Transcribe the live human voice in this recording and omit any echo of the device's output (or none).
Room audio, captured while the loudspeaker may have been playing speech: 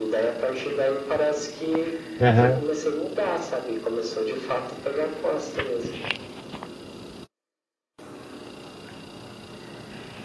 aham.